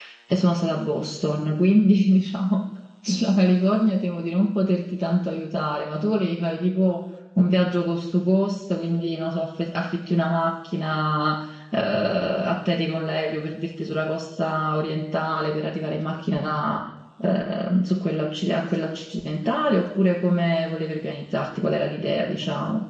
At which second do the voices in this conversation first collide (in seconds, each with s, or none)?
none